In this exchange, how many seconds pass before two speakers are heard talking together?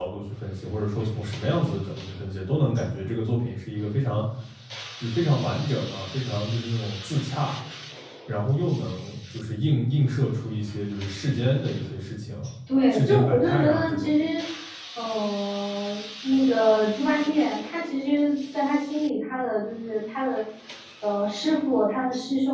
12.9 s

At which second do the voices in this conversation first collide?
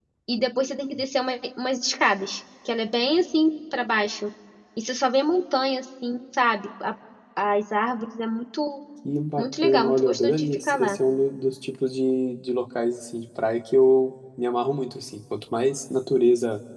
9.4 s

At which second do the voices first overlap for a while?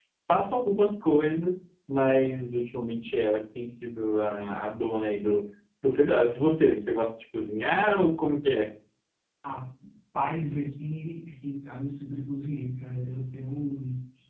none

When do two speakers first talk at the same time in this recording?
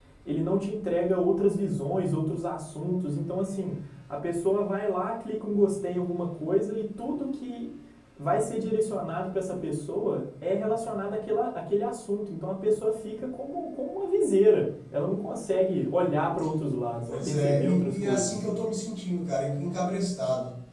17.1 s

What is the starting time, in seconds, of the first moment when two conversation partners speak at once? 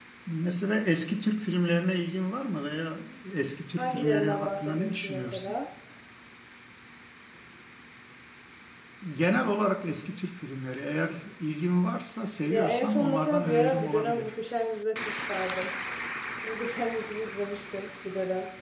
3.8 s

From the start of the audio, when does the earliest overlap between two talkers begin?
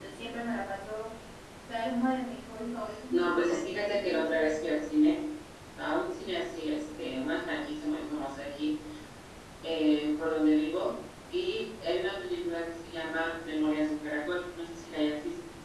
3.1 s

